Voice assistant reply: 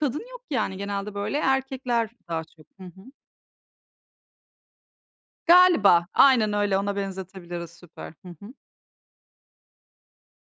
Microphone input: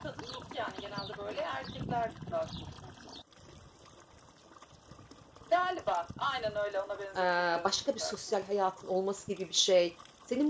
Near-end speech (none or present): present